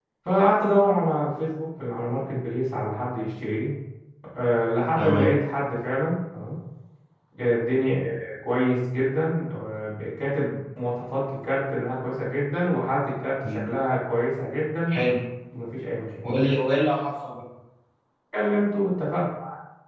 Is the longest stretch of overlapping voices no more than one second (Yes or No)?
Yes